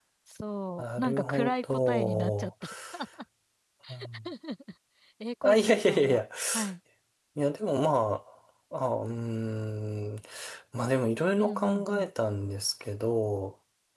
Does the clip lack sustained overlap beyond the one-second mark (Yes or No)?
No